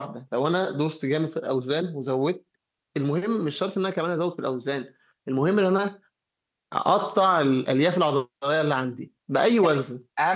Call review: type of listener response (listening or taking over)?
taking over